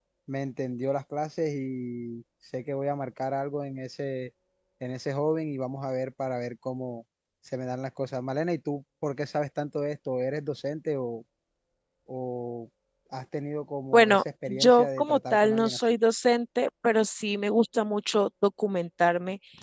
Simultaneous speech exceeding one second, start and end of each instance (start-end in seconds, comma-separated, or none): 13.9-15.8